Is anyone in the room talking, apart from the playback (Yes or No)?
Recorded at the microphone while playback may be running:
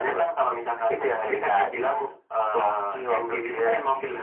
No